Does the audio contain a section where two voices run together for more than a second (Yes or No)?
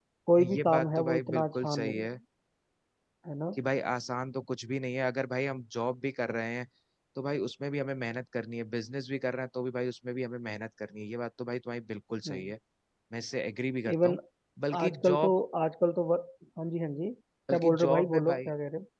Yes